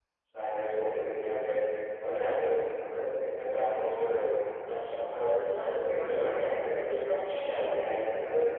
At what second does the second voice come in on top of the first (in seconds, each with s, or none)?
5.1 s